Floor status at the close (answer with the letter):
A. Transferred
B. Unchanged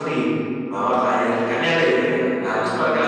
B